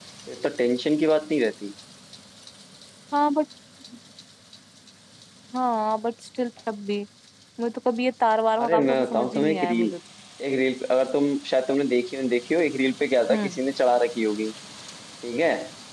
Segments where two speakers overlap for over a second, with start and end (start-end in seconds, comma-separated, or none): 8.6-9.9